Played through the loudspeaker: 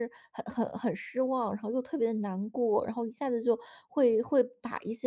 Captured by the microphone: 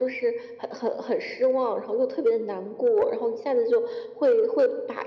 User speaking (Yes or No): No